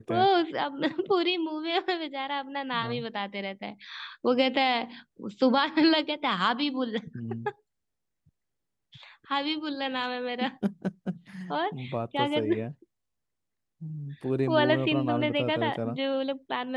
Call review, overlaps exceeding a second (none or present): present